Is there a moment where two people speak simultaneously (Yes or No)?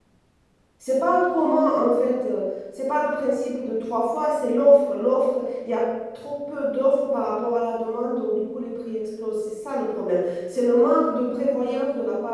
No